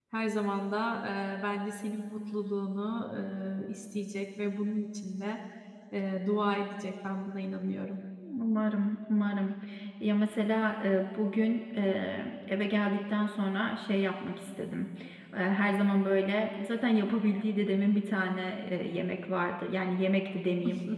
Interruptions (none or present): none